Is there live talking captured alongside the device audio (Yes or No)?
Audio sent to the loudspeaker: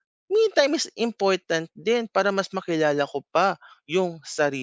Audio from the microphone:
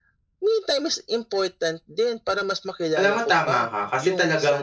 Yes